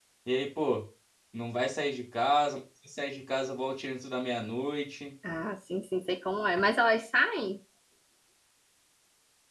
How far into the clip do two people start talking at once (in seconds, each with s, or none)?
none